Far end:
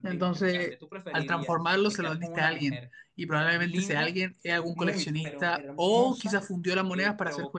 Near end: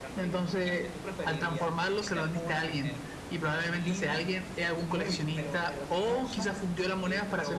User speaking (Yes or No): No